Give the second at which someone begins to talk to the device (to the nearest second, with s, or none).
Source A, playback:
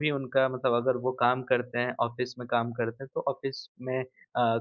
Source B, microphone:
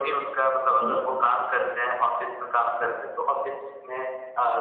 1 s